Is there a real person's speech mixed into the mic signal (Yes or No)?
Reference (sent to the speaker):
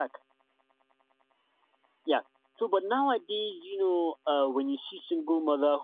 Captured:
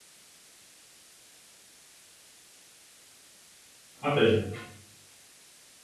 Yes